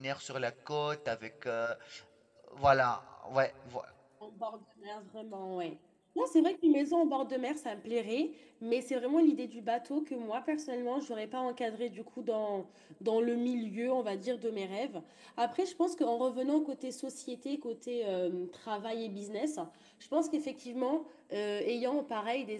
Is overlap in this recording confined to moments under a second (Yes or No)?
Yes